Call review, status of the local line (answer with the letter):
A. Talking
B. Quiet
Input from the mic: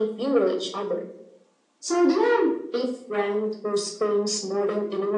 B